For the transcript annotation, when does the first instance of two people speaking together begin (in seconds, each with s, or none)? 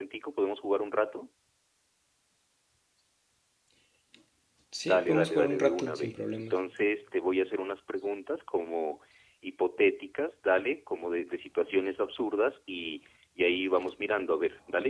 4.9 s